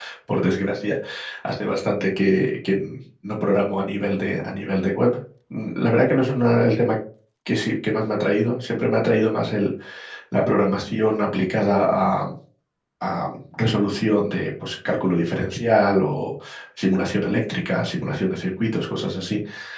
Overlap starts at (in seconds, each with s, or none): none